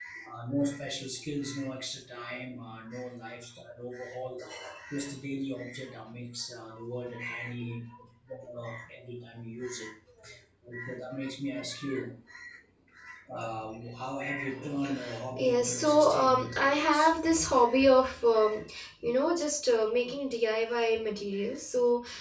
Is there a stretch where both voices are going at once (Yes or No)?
Yes